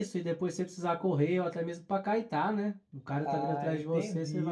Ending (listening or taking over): taking over